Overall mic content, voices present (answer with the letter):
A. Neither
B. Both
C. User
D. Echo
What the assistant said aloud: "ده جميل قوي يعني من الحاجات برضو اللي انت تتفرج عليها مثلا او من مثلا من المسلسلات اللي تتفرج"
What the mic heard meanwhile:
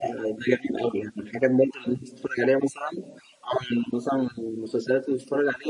D